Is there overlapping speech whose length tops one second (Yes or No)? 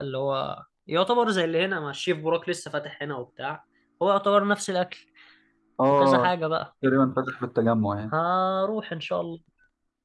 No